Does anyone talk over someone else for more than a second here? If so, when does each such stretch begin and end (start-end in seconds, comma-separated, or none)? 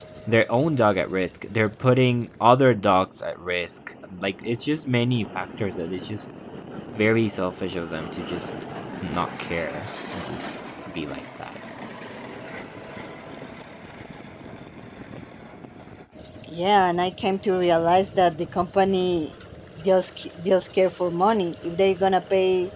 none